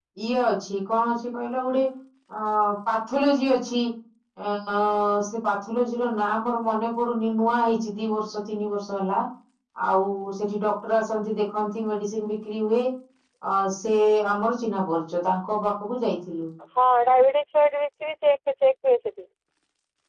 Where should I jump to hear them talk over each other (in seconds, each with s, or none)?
none